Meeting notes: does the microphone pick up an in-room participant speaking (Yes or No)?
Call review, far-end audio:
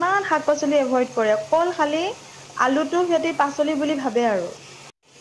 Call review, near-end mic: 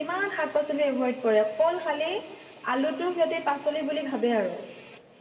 No